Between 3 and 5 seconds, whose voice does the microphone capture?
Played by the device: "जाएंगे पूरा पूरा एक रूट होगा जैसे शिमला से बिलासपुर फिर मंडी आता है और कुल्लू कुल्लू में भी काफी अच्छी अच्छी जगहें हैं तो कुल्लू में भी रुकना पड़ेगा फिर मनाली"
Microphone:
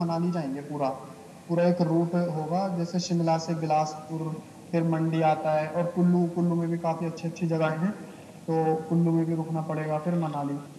echo only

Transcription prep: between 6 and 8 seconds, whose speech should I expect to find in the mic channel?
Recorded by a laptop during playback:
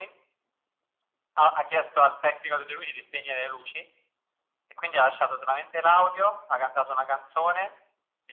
echo only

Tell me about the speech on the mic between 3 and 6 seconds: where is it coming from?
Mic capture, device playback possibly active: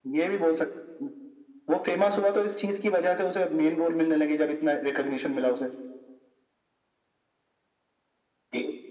echo only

